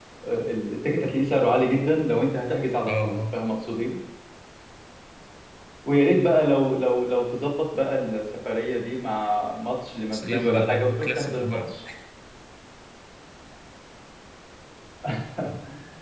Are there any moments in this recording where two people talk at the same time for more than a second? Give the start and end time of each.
10.1-11.7

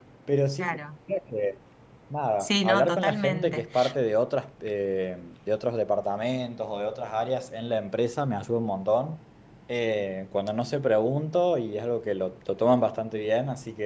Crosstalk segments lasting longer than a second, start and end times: 2.4-3.7

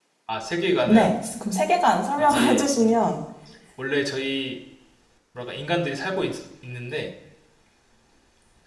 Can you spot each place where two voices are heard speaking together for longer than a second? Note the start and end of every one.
none

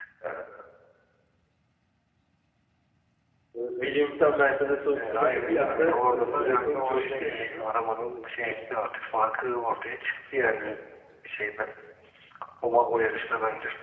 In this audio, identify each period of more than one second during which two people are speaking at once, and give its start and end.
5.0-7.7

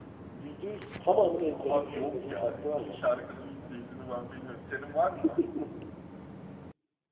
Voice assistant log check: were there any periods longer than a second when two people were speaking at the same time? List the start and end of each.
1.6-3.0

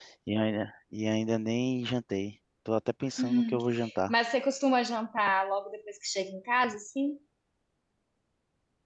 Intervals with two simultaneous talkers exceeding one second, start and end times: none

